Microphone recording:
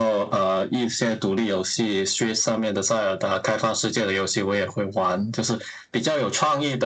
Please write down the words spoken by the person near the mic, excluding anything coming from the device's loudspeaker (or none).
none